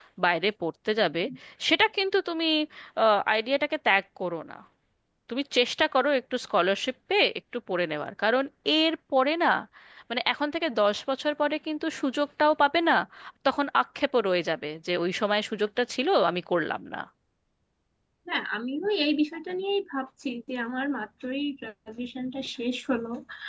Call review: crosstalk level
none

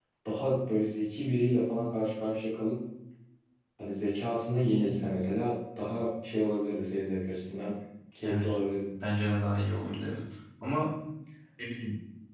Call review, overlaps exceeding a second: none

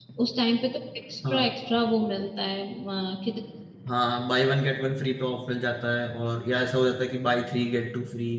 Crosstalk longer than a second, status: none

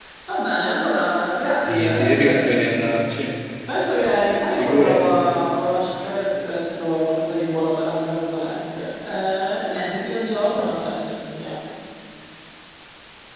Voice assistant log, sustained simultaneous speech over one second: present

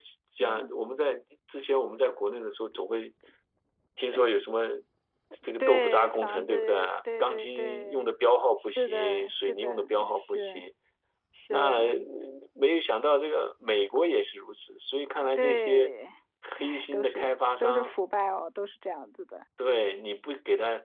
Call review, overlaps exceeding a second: present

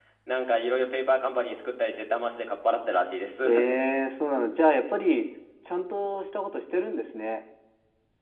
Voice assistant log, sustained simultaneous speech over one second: none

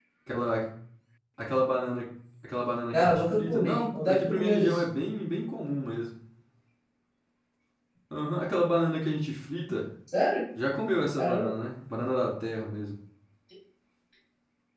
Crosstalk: present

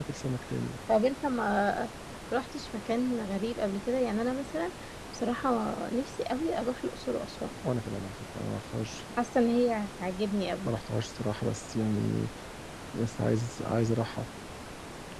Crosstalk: none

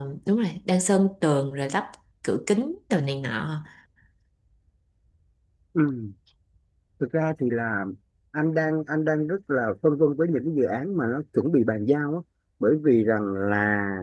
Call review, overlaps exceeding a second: none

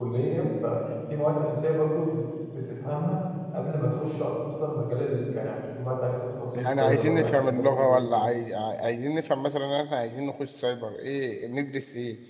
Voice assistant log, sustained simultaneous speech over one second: present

